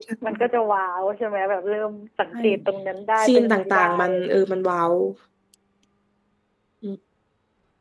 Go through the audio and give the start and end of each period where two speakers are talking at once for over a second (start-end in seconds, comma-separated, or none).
3.2-4.5